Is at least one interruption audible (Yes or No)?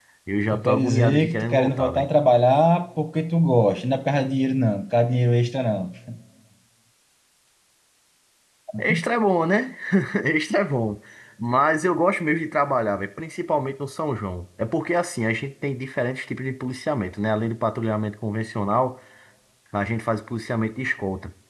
Yes